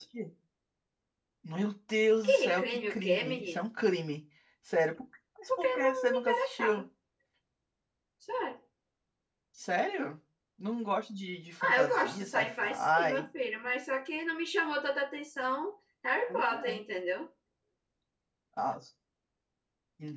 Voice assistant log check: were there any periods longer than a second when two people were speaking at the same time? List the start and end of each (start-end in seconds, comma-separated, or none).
2.2-3.6, 5.6-6.8, 11.6-13.2